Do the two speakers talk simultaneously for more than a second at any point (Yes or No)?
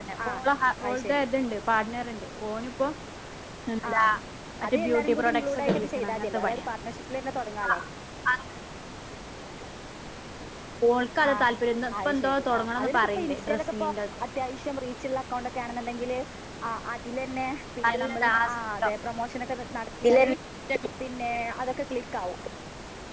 Yes